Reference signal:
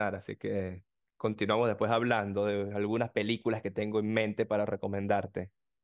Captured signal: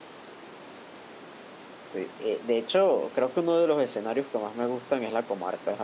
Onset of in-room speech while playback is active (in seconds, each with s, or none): 1.8 s